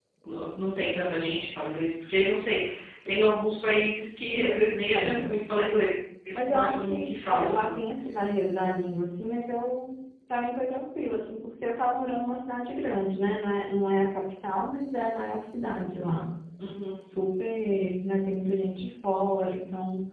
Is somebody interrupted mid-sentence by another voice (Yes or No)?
Yes